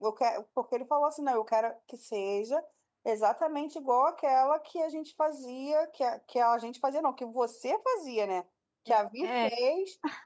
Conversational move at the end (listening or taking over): listening